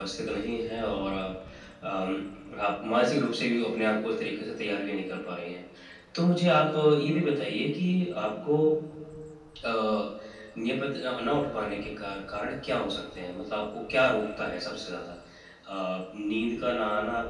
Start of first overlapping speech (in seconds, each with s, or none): none